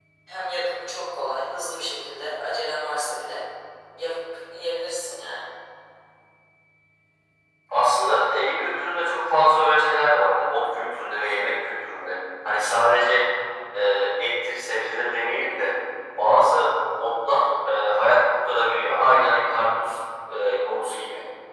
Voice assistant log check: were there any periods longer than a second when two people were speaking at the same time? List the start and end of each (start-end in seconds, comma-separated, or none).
none